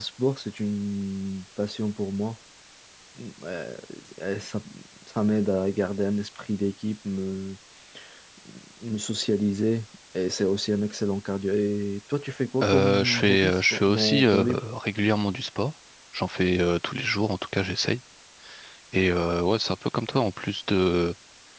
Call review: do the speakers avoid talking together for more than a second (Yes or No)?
No